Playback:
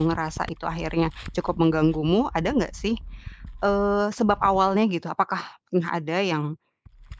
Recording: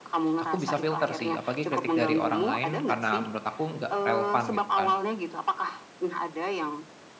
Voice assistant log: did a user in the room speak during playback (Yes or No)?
Yes